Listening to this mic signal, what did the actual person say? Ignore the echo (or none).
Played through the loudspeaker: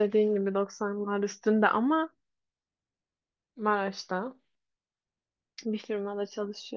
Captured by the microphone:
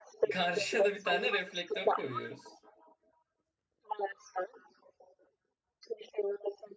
karşıya da bir tane reflektör koyuyoruz.